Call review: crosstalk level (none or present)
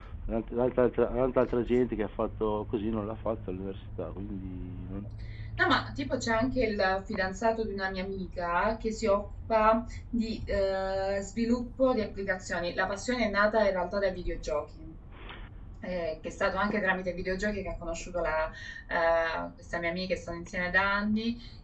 none